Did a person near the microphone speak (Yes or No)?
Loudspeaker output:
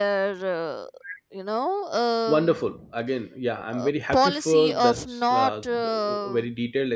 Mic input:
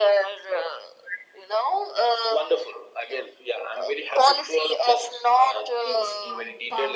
Yes